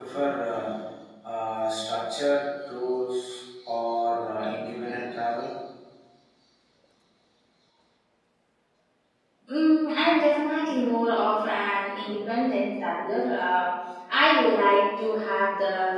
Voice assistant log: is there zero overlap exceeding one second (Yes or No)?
Yes